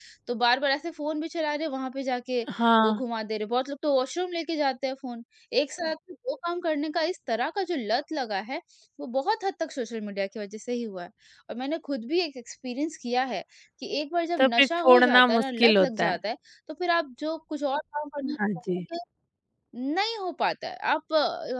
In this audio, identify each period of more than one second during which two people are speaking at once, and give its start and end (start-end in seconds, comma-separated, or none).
14.4-16.2